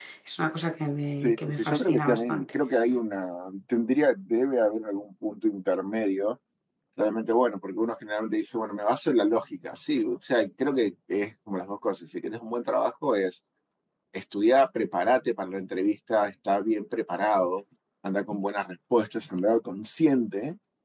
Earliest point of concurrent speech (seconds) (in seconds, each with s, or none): 1.2 s